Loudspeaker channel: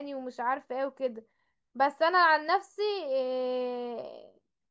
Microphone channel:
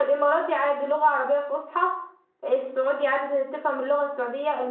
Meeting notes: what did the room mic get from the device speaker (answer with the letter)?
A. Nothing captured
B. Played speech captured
A